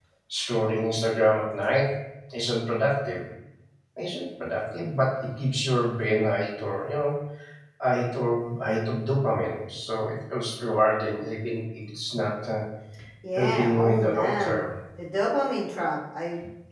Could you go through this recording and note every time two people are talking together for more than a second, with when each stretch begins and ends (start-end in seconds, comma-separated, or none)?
13.4-14.6